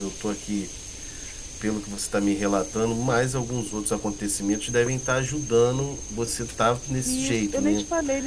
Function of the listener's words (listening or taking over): taking over